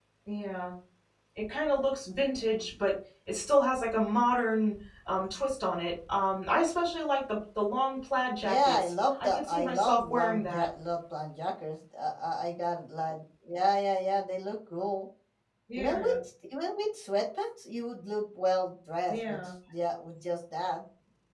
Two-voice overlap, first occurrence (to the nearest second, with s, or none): 8 s